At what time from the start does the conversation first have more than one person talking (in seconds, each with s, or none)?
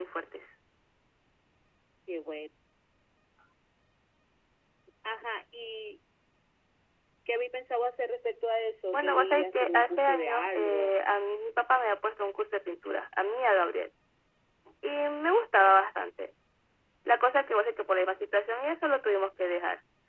8.9 s